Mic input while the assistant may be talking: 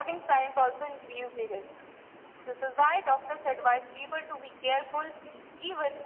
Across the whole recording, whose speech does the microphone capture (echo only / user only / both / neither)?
echo only